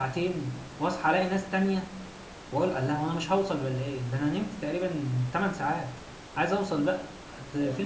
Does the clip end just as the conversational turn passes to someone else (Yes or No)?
No